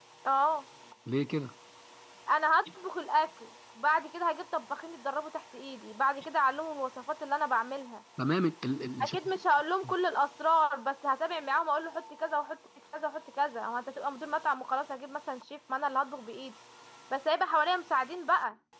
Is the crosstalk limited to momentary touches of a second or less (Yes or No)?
Yes